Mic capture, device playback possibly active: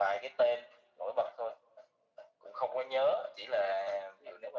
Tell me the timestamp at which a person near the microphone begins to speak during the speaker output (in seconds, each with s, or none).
none